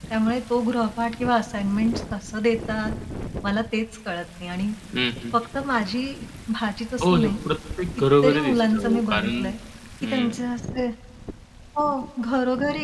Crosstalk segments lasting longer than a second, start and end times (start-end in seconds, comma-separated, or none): 8.0-9.5